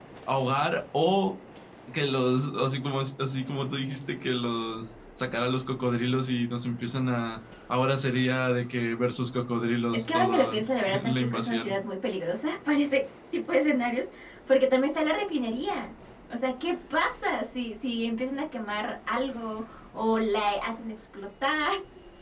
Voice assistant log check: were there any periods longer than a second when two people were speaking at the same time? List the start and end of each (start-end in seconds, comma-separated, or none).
9.9-11.7